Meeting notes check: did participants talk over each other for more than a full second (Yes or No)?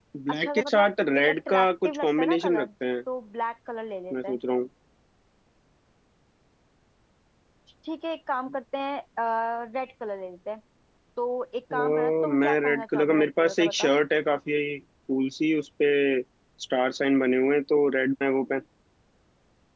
Yes